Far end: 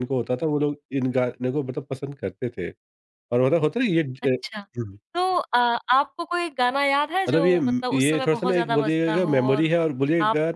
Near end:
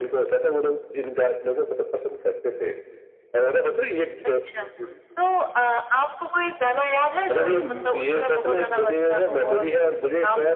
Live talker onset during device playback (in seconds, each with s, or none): none